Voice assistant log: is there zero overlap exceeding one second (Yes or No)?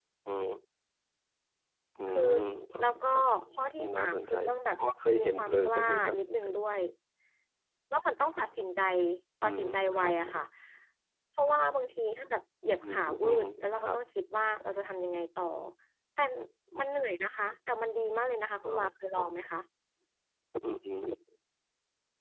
No